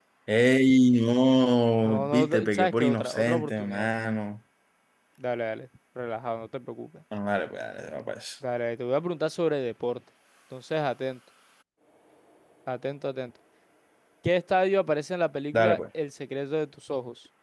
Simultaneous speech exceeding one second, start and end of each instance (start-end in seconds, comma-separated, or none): 1.9-3.9